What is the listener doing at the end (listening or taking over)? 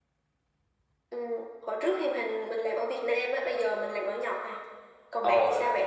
taking over